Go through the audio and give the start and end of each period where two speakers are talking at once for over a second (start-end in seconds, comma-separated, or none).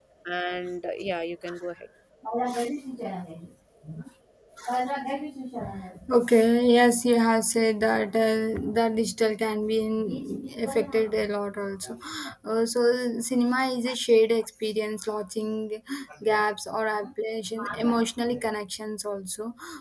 none